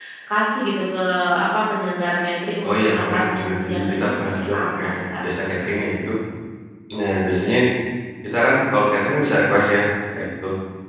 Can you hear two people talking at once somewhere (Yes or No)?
Yes